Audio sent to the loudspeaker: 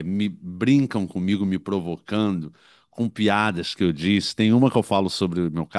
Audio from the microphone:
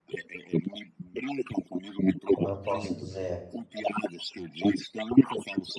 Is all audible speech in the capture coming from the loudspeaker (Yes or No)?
No